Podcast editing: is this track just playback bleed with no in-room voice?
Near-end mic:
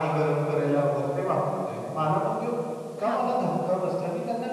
No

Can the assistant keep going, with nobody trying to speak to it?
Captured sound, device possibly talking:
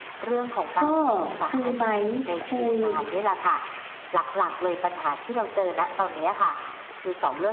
No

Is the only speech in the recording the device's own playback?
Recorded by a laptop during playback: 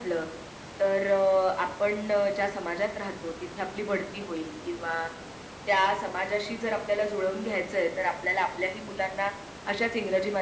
Yes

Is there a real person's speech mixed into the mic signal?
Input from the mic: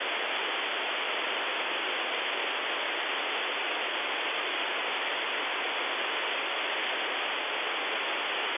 No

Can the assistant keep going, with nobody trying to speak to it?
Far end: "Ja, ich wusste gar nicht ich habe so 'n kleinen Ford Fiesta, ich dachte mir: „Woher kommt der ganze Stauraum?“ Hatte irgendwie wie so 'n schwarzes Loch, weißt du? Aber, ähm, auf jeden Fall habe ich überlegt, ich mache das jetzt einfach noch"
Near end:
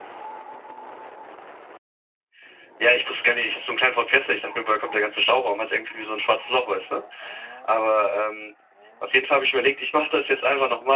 Yes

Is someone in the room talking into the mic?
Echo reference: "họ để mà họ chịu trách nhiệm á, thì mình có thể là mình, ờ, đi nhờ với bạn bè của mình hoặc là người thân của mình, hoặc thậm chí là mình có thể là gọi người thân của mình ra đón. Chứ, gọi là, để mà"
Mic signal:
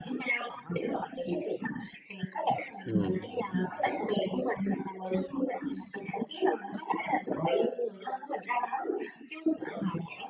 Yes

